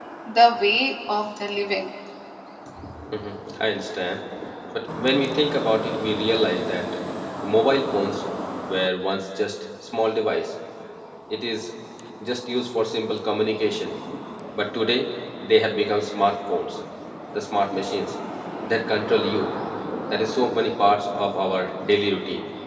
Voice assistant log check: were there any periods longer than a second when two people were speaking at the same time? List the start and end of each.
none

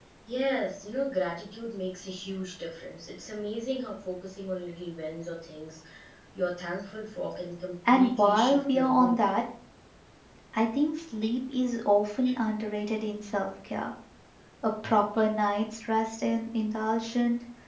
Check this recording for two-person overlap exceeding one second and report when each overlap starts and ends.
7.9-9.2

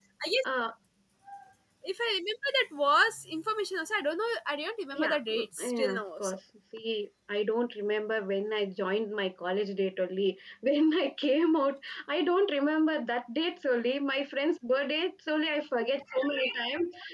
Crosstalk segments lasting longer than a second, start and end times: 4.9-6.4

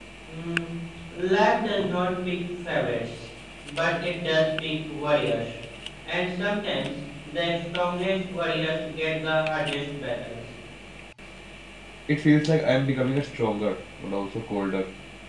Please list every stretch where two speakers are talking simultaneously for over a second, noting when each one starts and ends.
none

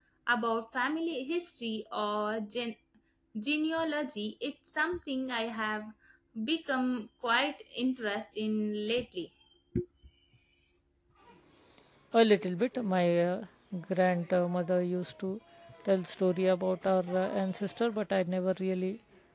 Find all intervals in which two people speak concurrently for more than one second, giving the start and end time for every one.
none

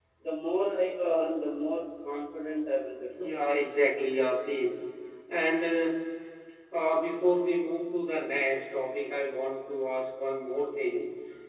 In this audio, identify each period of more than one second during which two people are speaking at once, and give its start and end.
none

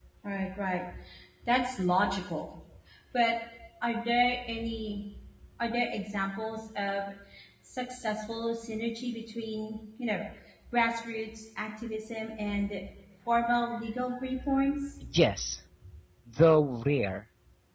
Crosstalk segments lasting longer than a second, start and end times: none

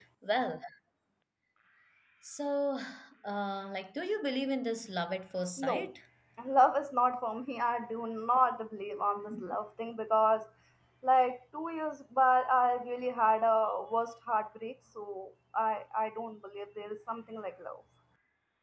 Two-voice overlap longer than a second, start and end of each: none

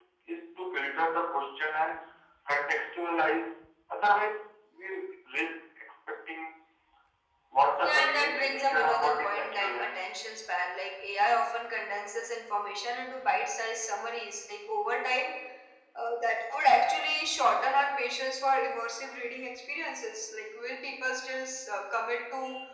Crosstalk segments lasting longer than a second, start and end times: 7.8-9.9

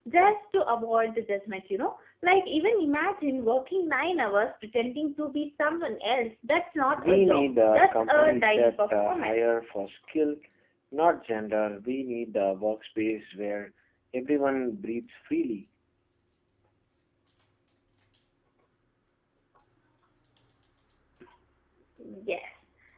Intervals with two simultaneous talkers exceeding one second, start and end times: 7.0-9.6

